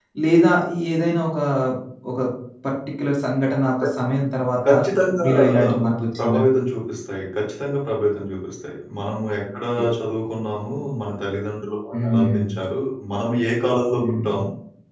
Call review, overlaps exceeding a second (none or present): none